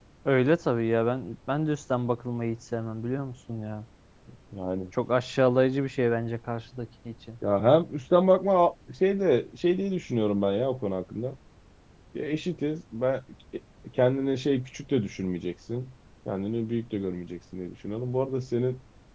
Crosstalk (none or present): none